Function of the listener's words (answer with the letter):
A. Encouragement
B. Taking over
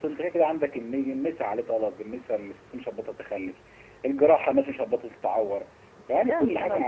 B